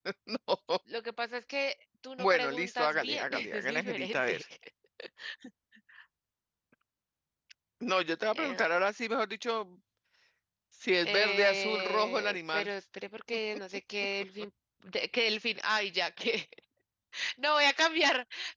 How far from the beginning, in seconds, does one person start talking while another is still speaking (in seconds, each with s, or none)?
2.2 s